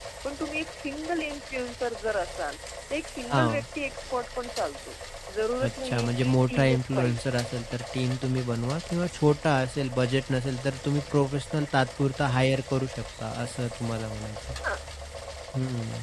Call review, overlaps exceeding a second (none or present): present